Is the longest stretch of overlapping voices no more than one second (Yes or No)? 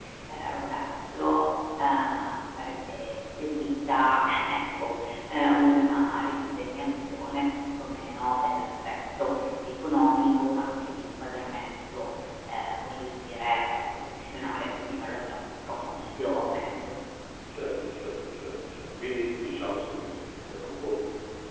Yes